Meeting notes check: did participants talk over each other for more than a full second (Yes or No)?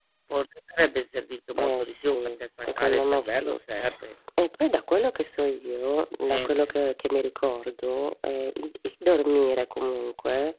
Yes